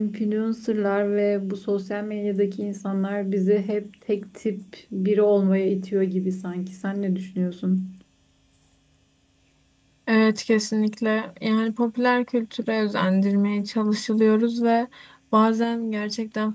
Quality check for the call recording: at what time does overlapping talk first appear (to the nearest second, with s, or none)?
none